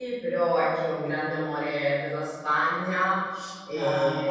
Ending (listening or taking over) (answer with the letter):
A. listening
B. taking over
A